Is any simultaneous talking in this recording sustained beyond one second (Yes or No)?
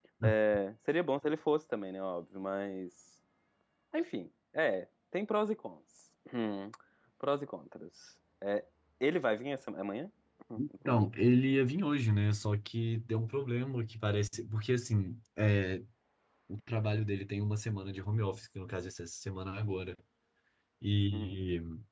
No